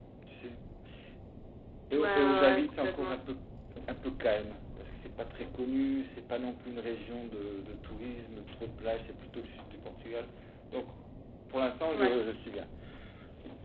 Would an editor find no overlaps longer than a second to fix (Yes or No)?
No